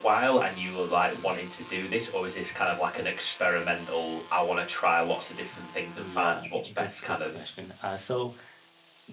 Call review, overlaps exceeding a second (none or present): present